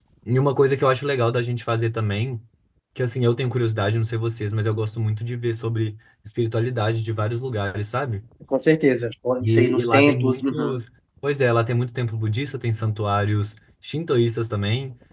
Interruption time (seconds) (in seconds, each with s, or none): 9.4 s